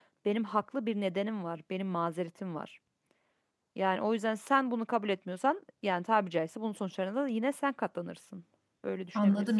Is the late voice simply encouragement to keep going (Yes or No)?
No